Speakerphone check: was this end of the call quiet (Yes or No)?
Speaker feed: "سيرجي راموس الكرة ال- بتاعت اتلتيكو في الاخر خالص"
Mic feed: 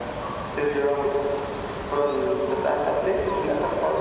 Yes